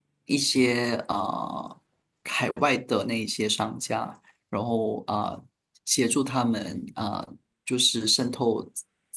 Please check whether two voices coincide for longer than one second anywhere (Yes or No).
No